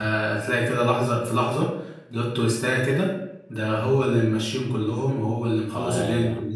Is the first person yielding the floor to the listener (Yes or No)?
No